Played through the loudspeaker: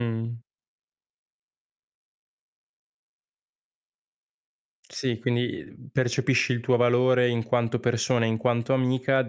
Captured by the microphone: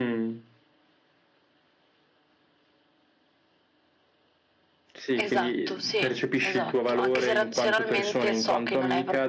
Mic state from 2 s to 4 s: neither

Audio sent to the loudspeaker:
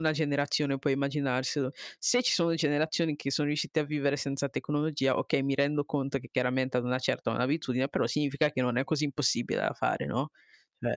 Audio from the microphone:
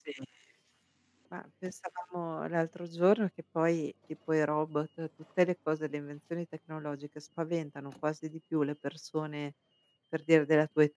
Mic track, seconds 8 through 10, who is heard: user only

